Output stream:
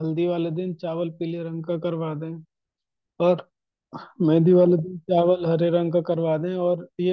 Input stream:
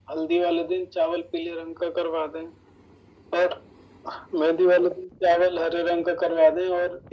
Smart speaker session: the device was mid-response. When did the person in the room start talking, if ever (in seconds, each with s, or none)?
none